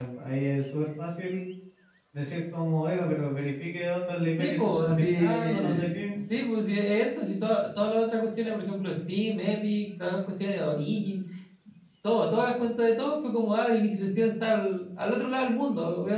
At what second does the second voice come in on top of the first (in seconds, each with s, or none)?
4.3 s